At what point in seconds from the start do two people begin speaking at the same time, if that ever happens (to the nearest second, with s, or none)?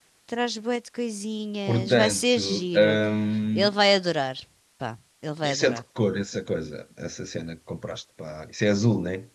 2 s